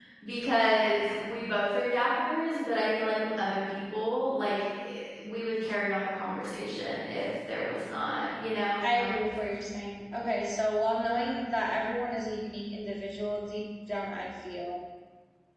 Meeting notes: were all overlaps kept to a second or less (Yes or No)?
Yes